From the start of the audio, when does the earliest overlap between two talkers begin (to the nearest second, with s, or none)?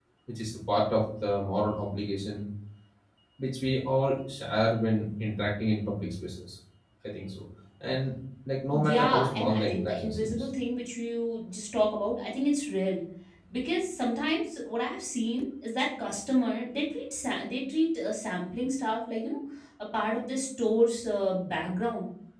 9 s